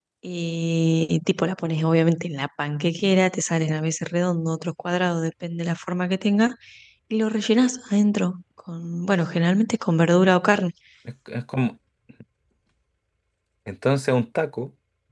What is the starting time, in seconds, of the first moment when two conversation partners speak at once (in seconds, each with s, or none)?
none